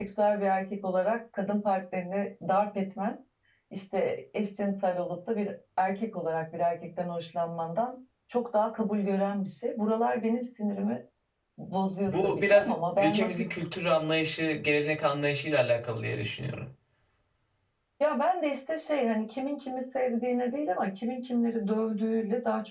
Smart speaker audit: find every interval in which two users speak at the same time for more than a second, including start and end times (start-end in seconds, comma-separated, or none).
12.1-13.3